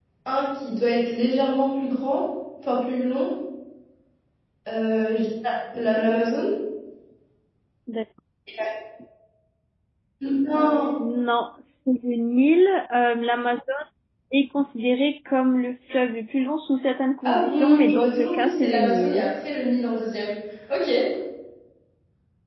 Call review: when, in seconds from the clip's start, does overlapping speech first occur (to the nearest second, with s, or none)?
17 s